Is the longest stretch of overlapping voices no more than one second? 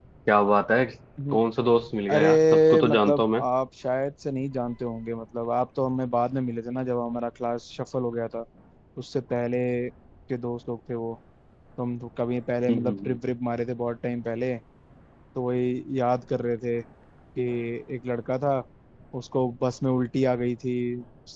No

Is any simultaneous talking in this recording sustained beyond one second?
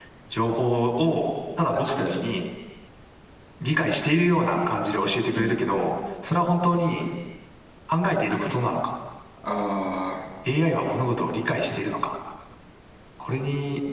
No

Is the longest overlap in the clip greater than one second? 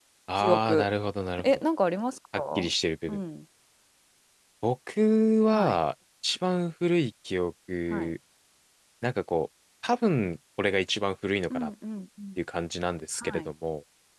No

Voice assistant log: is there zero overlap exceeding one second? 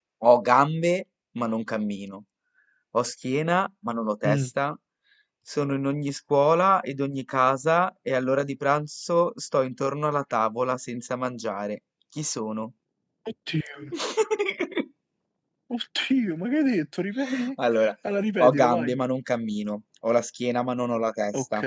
Yes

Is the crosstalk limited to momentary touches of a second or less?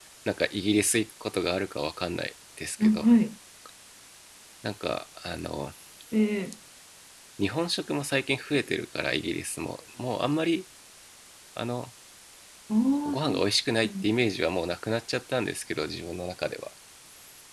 Yes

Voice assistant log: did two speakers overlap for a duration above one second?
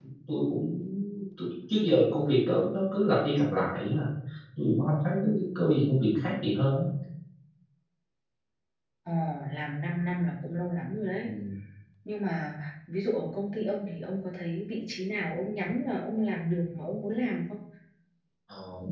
No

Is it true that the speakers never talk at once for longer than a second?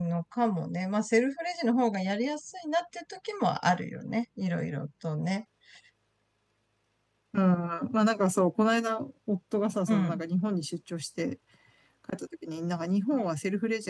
Yes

